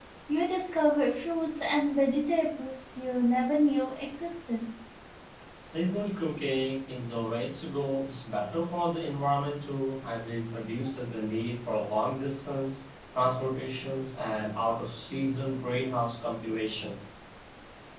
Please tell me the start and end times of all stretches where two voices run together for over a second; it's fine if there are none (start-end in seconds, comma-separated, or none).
none